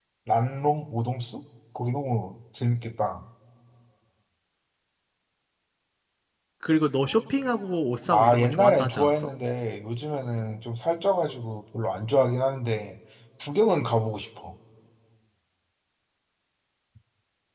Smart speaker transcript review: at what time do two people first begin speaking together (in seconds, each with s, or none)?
8.1 s